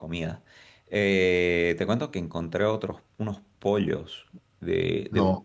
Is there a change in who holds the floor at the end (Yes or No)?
No